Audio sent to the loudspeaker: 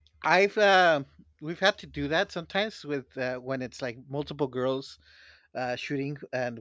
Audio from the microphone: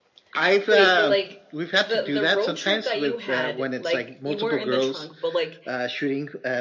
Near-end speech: present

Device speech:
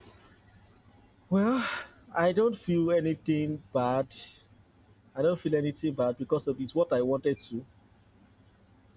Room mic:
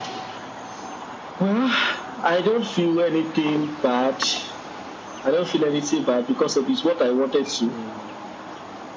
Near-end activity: none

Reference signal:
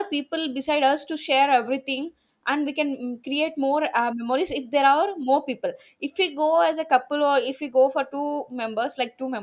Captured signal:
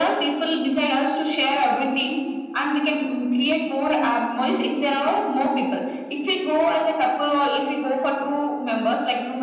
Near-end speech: none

